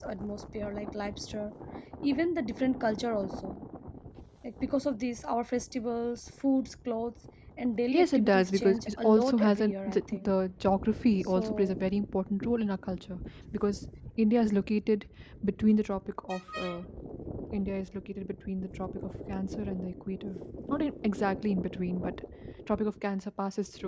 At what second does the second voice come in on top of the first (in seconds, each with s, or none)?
7.9 s